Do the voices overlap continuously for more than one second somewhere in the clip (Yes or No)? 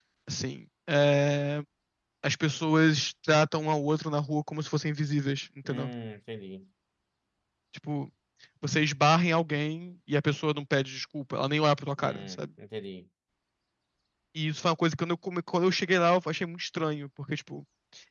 No